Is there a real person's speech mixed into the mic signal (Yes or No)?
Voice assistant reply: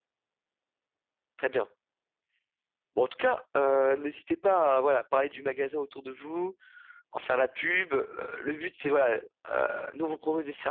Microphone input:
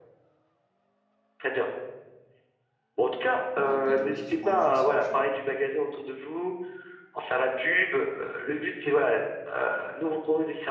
Yes